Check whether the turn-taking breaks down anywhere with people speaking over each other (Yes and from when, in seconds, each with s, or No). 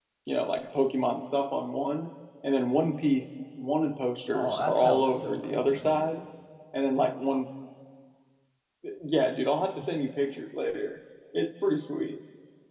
Yes, from 4.3 s